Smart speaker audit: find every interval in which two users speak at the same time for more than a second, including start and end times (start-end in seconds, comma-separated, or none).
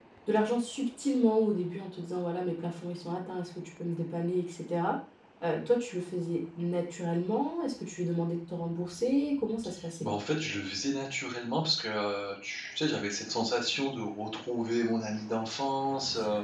none